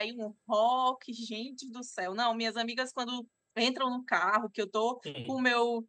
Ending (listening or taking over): listening